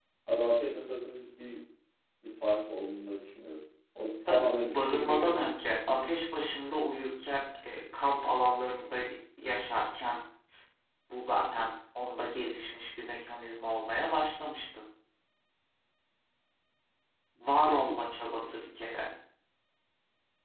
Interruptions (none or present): present